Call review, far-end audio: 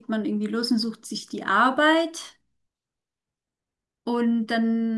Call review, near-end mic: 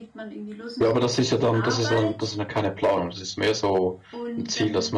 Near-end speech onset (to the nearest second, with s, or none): 1 s